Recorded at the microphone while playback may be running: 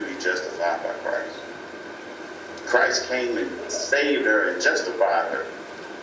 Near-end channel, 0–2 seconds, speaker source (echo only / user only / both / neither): echo only